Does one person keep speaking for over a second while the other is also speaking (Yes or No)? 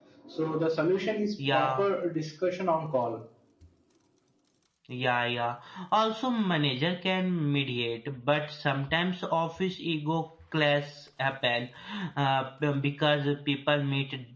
No